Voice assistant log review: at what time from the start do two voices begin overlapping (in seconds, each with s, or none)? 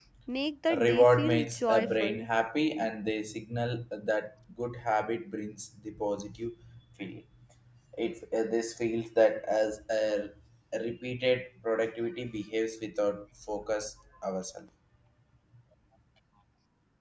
0.8 s